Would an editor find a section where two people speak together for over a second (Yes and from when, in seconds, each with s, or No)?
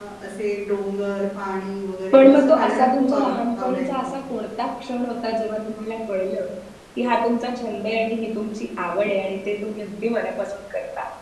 Yes, from 2.1 s